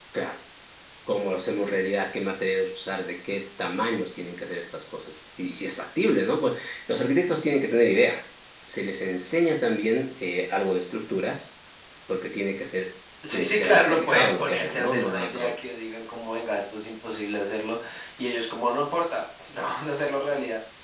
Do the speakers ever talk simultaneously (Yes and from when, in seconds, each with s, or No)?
Yes, from 13.2 s